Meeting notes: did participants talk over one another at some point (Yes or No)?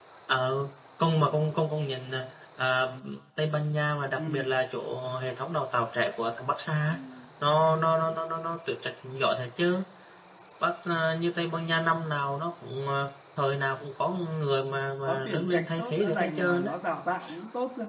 Yes